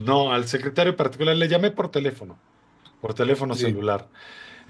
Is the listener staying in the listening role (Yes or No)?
Yes